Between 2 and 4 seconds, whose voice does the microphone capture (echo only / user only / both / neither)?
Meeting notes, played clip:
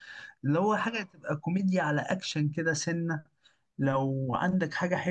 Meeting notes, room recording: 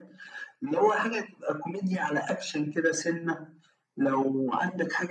echo only